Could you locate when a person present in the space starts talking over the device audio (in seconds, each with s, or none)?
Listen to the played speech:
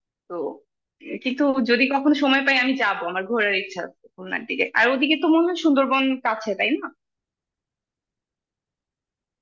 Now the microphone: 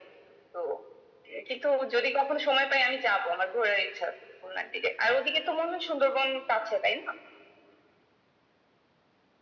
none